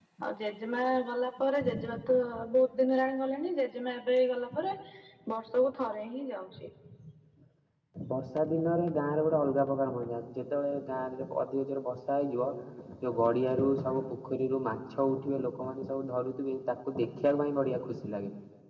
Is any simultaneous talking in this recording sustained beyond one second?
No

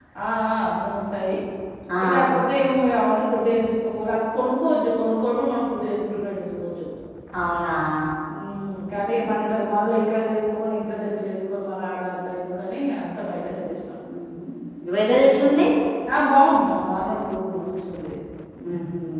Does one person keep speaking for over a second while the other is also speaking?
No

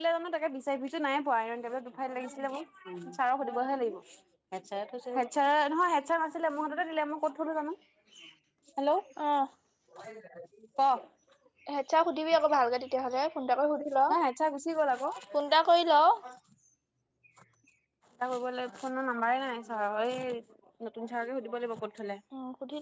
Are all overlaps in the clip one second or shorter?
Yes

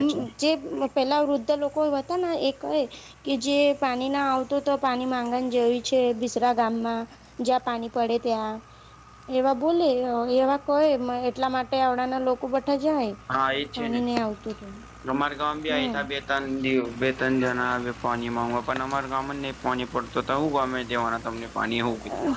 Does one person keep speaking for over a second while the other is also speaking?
No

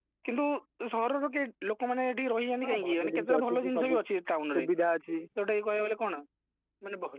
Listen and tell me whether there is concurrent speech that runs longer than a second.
Yes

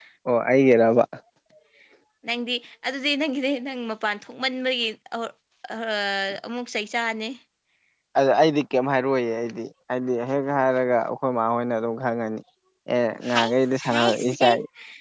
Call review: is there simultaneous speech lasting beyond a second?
Yes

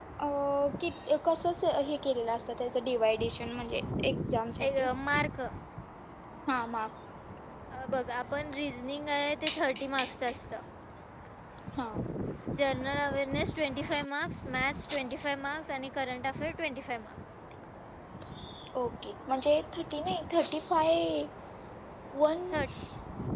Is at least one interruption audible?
No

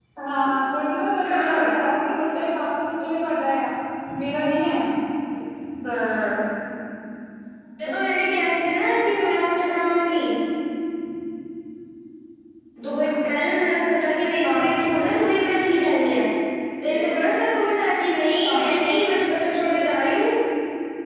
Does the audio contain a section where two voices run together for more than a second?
No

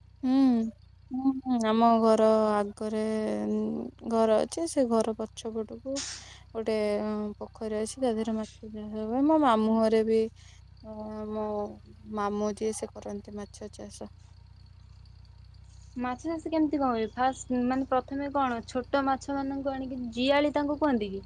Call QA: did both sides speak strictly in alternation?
Yes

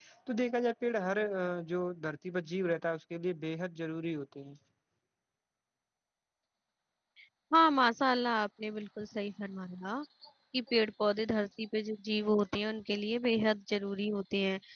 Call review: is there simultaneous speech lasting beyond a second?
No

